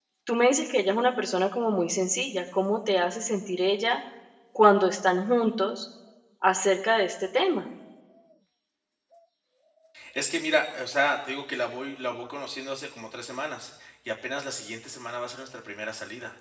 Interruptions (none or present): none